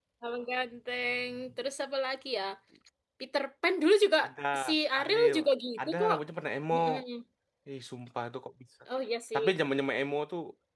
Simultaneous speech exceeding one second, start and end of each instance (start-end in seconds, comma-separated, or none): none